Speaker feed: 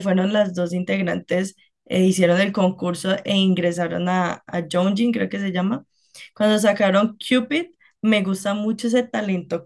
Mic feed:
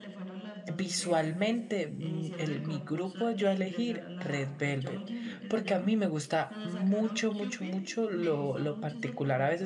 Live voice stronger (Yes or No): Yes